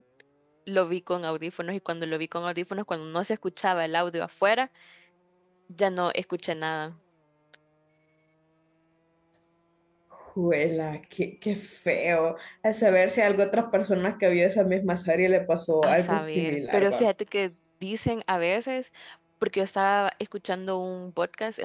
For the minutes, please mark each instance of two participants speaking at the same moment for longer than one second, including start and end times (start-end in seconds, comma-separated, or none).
15.8-17.1